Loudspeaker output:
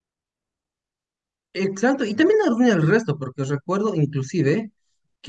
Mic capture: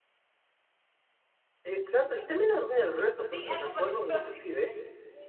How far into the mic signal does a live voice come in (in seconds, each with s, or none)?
3.3 s